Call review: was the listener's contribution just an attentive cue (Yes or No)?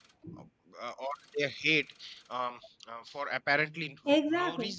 Yes